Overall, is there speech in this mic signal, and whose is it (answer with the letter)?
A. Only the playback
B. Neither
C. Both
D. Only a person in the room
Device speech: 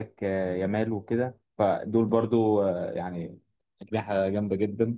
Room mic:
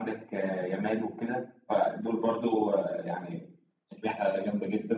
A